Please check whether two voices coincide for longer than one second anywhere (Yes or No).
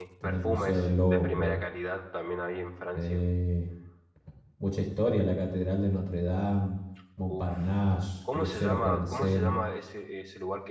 Yes